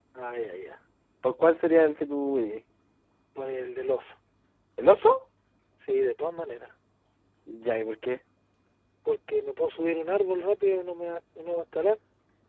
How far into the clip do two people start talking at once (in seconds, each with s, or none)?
none